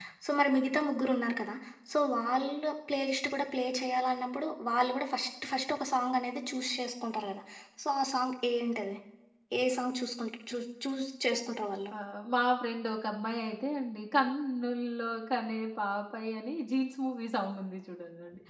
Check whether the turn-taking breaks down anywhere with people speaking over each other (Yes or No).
No